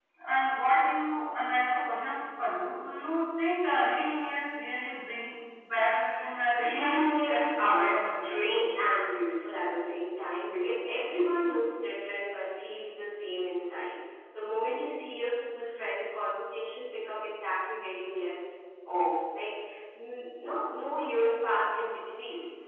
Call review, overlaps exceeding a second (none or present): present